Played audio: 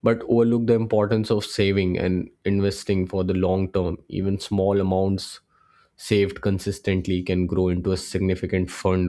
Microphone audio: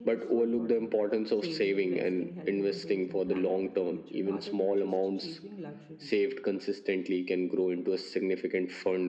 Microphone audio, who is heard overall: both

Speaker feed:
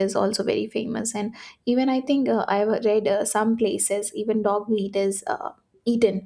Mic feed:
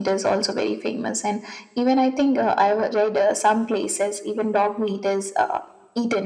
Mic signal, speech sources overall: echo only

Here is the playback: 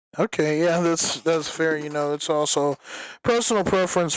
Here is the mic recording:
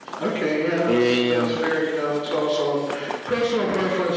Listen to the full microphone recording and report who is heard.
both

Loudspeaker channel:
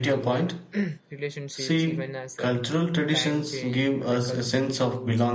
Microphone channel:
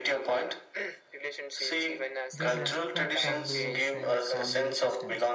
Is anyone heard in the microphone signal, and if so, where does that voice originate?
both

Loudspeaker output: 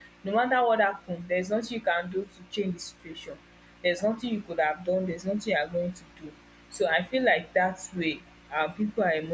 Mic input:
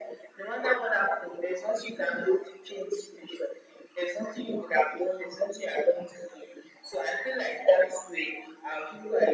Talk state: echo only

